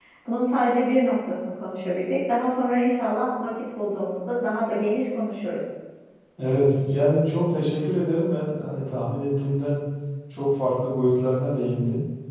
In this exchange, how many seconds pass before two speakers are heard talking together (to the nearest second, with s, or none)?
none